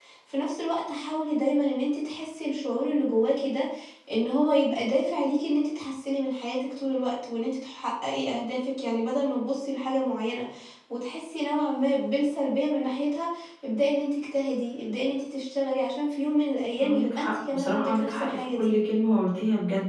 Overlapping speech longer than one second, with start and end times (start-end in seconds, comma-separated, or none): 16.8-18.7